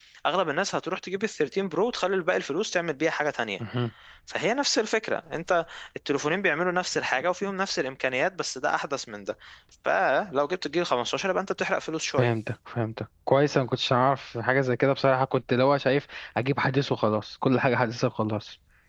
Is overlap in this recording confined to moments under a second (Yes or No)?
Yes